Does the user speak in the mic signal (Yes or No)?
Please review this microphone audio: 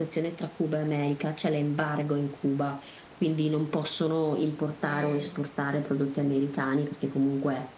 Yes